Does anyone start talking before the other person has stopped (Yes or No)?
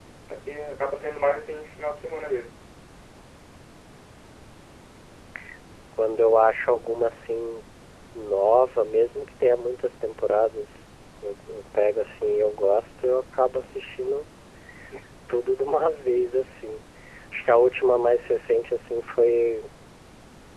No